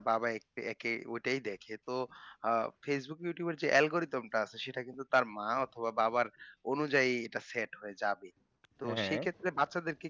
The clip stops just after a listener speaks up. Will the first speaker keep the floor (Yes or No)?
Yes